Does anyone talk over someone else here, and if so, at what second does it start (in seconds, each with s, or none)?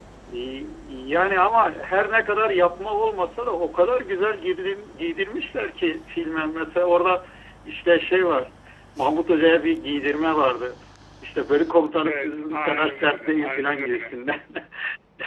12.1 s